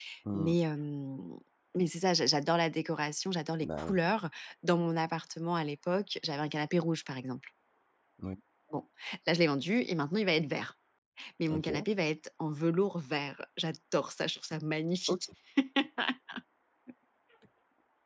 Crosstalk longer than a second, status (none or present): none